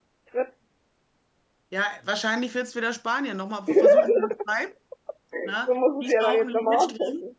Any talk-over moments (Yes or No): Yes